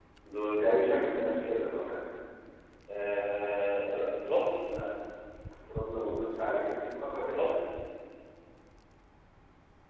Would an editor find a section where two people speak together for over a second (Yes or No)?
No